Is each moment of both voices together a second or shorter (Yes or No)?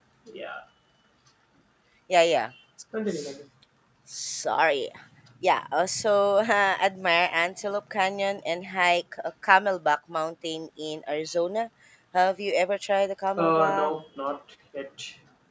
Yes